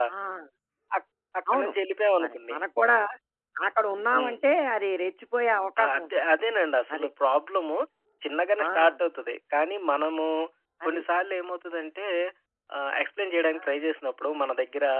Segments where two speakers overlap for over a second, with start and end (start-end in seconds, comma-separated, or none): none